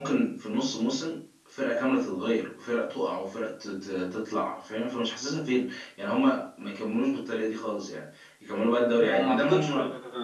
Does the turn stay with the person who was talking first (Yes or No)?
No